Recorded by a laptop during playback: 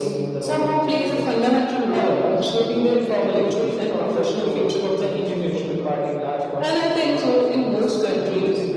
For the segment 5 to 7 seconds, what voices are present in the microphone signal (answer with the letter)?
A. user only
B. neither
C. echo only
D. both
D